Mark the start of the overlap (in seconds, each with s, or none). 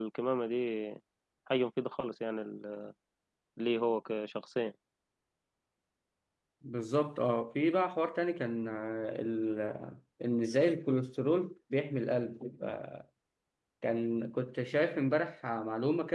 none